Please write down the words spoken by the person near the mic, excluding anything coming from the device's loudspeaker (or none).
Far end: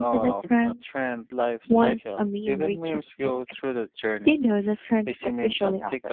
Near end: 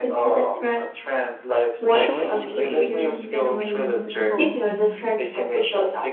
shorts creators get away with reposting